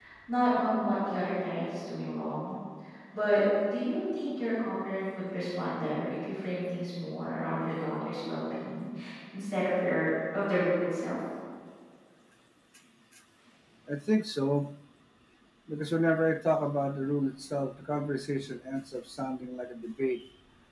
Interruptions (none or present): none